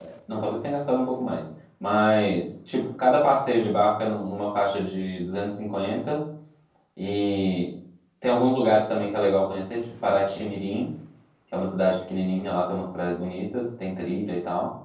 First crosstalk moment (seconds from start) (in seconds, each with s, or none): none